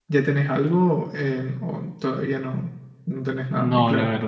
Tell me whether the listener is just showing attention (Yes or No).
No